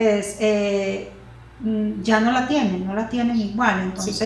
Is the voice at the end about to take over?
No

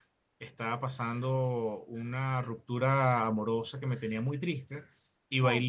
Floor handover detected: No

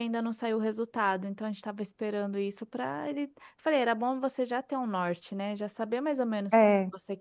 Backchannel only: Yes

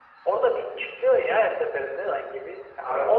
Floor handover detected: No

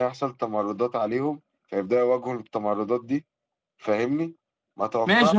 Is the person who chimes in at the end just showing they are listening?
No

